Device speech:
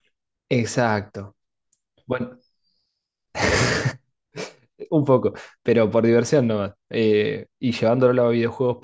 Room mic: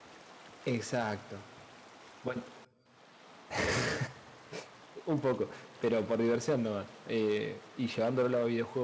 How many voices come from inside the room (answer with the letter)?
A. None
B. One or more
A